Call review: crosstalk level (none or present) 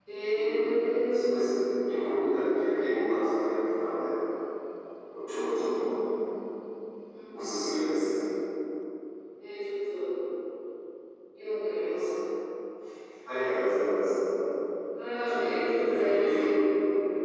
present